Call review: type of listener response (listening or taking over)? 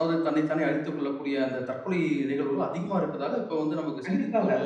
taking over